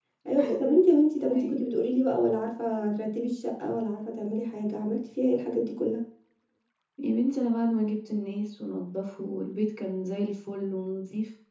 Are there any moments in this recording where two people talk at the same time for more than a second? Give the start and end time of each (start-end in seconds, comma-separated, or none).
none